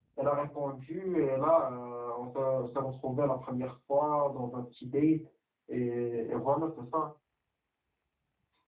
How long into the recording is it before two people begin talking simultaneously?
none

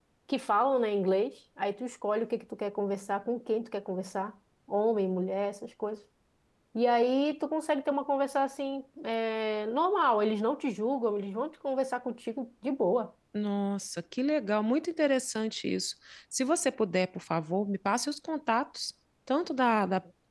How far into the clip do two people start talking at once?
none

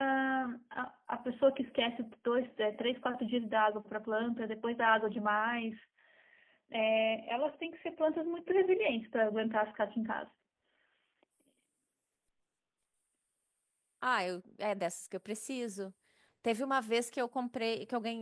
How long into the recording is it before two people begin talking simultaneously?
none

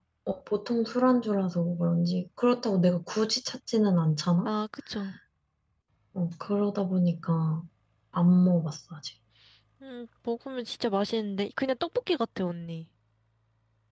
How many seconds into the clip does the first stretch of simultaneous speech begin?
none

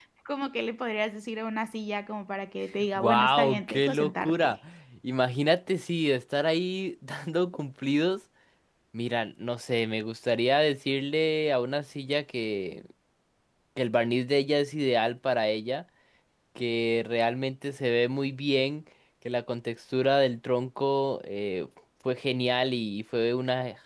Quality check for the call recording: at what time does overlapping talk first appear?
3.0 s

